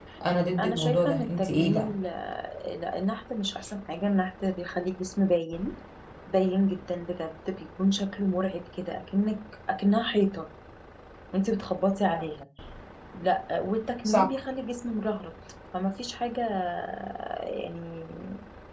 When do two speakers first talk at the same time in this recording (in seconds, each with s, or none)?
0.6 s